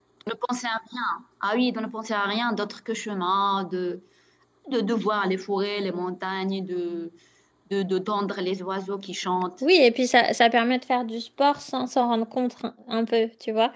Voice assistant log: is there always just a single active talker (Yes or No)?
Yes